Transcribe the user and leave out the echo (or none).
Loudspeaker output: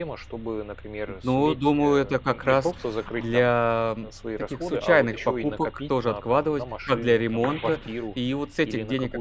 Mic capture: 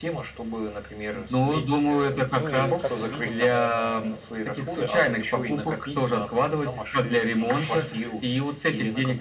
Ну и, как мы видим, наверное,